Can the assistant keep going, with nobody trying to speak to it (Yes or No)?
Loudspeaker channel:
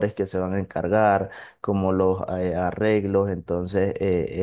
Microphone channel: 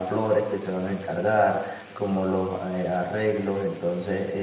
Yes